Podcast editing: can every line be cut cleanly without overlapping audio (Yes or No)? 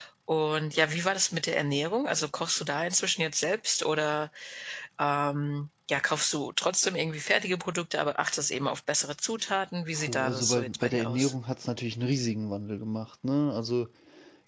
No